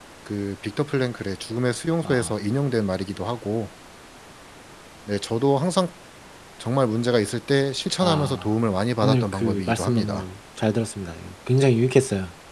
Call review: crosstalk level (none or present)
present